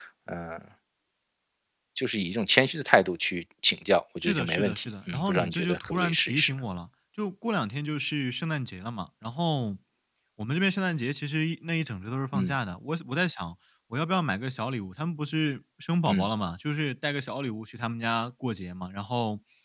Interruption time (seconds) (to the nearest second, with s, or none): 4 s